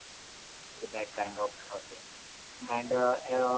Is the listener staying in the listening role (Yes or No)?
Yes